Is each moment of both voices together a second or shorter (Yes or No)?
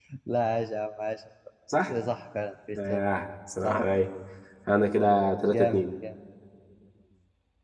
Yes